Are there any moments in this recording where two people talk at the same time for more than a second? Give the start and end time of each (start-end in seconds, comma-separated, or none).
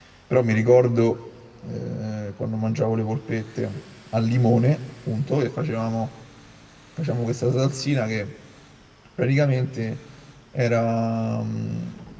none